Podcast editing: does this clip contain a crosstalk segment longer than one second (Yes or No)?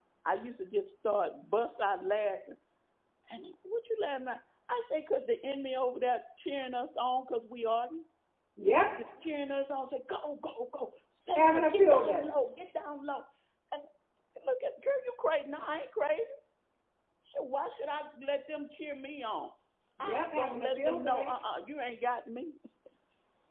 Yes